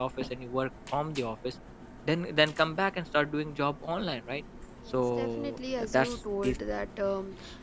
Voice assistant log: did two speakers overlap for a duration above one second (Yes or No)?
Yes